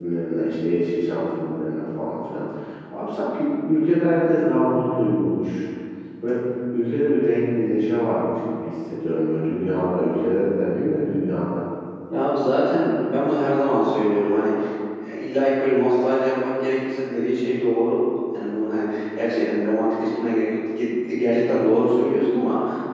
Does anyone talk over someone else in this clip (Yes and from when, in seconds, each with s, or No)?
No